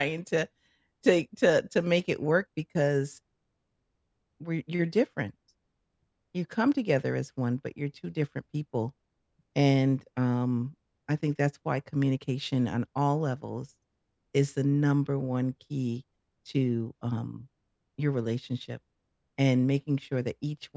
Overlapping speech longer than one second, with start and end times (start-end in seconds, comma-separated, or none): none